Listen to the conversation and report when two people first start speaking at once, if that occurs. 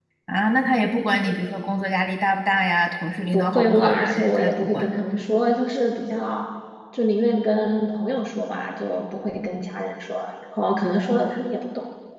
3.3 s

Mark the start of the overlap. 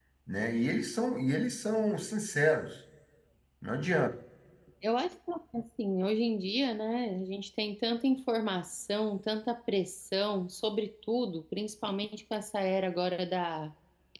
none

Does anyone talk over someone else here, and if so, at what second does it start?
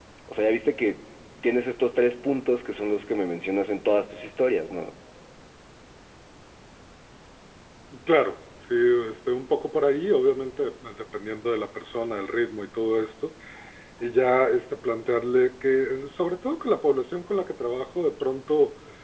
none

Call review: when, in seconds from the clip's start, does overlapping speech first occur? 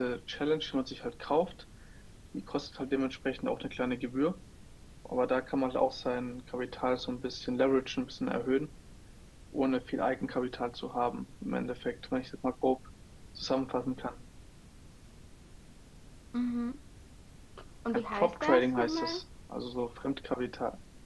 17.9 s

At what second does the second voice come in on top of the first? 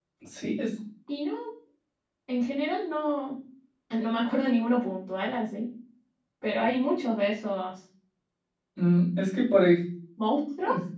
none

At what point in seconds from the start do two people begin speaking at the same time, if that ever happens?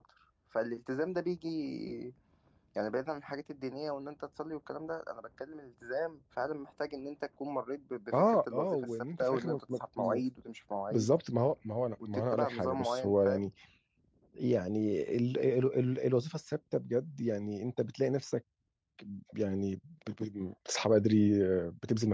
8.3 s

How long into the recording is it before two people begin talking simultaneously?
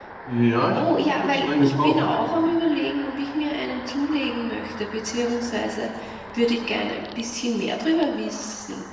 0.8 s

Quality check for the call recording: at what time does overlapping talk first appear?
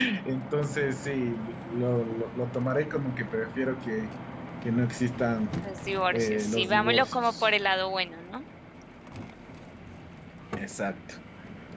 6.1 s

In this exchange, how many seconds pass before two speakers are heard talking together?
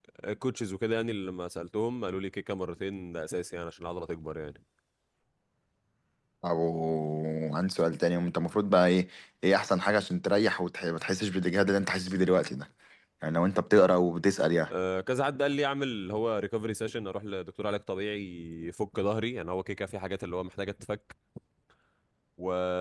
none

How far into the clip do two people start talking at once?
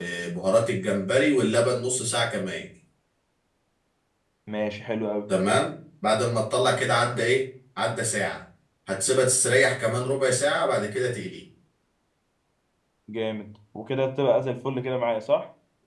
none

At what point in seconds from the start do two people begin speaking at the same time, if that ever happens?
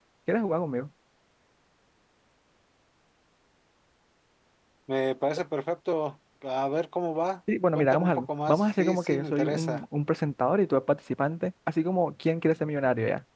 7.8 s

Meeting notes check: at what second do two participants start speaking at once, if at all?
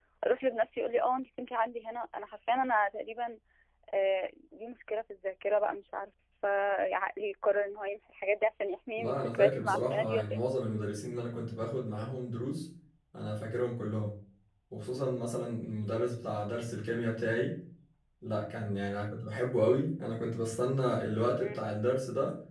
9.0 s

